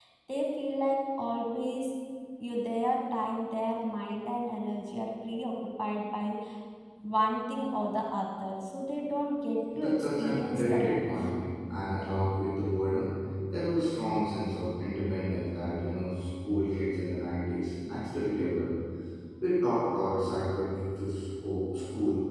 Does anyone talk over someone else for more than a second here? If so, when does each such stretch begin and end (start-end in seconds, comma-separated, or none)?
9.8-11.0